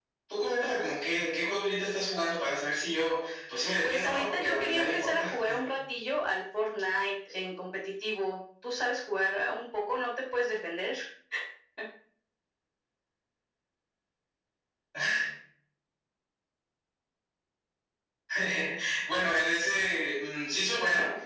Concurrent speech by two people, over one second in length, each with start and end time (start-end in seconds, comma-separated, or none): 3.8-5.3